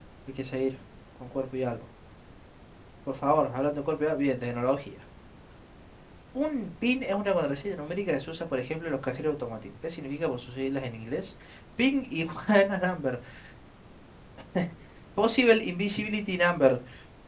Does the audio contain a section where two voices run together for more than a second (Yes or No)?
No